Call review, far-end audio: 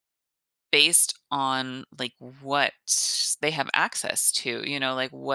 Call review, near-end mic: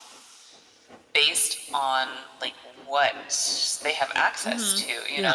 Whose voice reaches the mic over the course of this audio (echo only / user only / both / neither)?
both